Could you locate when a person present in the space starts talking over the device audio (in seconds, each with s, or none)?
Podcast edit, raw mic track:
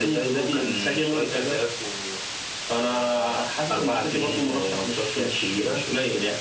none